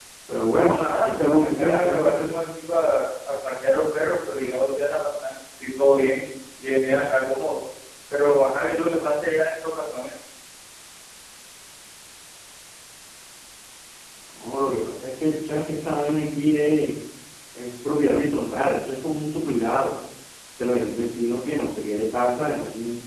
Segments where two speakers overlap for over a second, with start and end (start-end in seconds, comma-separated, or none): 0.5-2.3